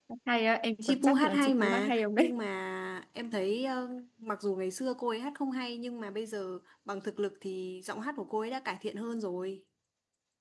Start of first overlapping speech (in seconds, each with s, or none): 0.8 s